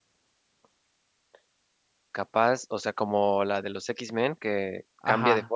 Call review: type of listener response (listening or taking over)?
taking over